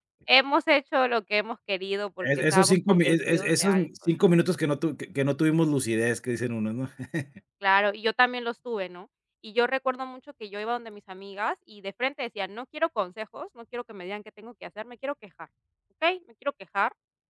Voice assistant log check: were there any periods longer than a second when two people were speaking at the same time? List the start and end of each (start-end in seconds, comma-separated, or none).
2.2-3.9